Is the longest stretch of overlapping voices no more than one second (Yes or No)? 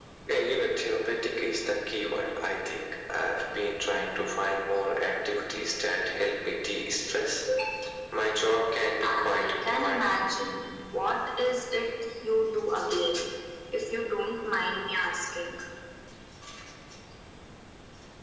No